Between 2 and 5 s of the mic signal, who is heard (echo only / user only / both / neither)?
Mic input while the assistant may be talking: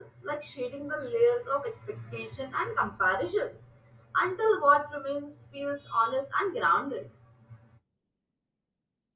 user only